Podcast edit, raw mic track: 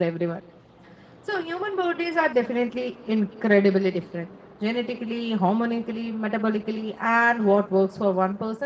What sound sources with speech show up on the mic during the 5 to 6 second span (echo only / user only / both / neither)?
user only